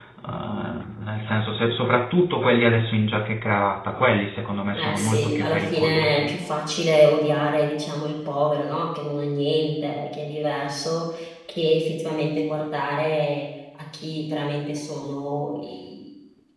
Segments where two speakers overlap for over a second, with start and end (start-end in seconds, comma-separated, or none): 4.8-6.4